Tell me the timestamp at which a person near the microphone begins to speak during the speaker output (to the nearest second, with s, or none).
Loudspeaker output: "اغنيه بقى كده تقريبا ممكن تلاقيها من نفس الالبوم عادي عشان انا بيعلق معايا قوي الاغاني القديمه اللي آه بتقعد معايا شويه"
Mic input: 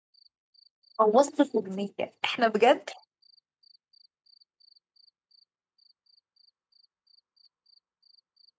1 s